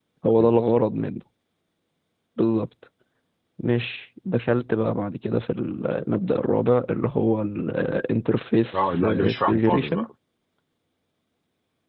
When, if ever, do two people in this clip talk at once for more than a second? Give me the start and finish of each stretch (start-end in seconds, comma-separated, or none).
8.8-10.1